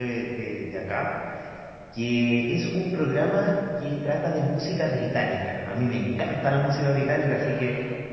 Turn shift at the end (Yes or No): No